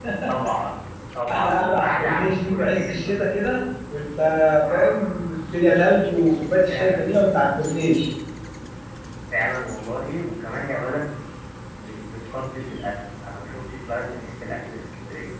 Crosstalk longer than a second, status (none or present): present